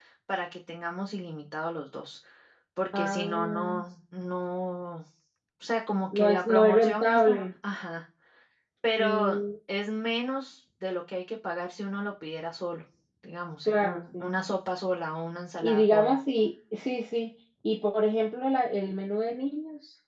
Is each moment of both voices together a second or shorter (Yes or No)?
No